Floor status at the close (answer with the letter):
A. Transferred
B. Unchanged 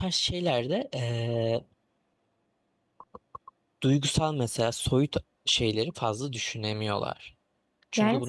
A